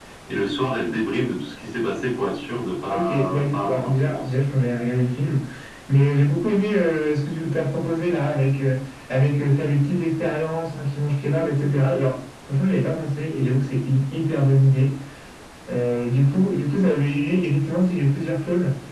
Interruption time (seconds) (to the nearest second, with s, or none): 3 s